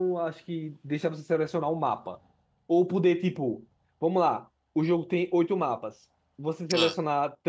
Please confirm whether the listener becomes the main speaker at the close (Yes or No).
No